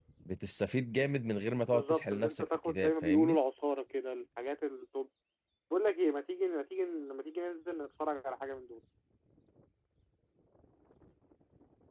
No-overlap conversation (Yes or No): No